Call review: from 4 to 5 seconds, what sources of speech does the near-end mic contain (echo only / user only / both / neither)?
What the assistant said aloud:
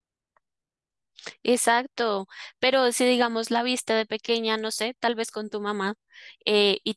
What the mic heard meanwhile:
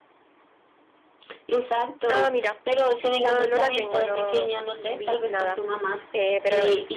both